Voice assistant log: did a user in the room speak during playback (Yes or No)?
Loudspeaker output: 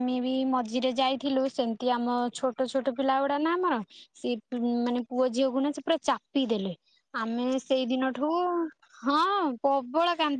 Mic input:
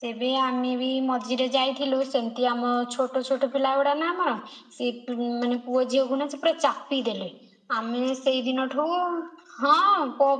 No